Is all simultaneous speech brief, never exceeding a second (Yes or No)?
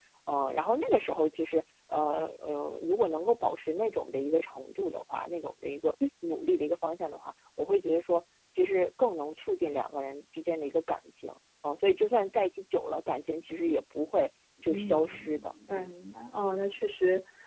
No